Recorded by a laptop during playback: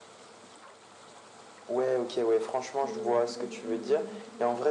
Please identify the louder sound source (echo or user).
echo